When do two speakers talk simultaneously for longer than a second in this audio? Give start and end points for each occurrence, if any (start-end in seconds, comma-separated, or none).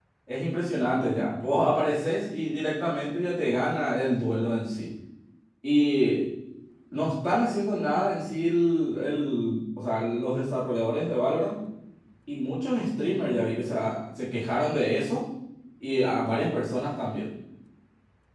none